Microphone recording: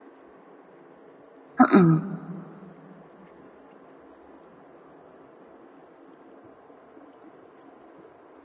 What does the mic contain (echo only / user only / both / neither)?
user only